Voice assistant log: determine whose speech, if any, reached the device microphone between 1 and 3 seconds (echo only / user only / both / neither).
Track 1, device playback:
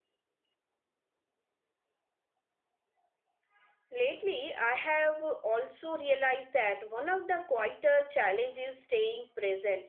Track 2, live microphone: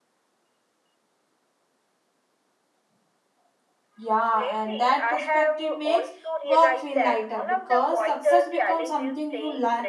neither